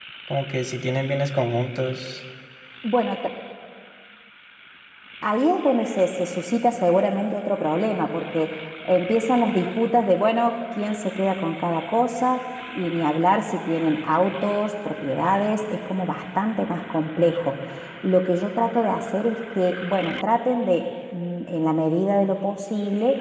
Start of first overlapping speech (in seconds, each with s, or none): none